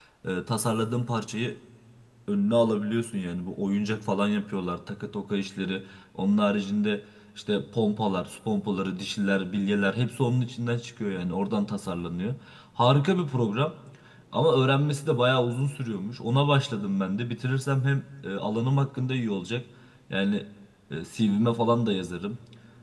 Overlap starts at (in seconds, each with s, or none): none